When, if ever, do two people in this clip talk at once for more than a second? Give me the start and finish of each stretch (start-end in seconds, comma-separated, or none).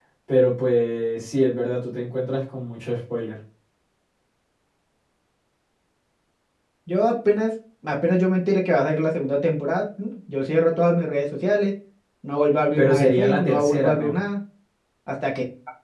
12.8-14.1